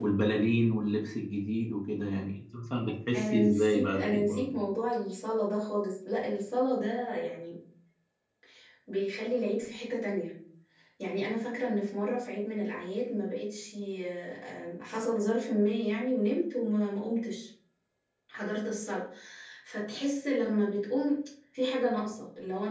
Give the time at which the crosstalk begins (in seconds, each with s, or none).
3.1 s